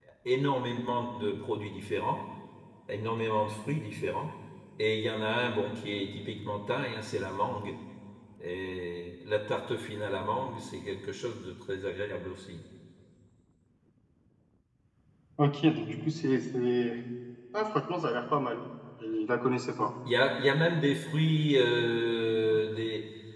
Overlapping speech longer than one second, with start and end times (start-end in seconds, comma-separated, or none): none